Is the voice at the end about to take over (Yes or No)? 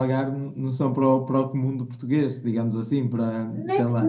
Yes